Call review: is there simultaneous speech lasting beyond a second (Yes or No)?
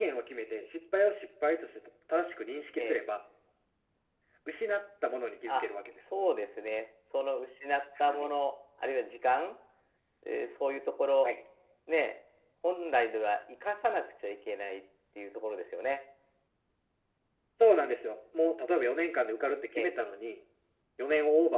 No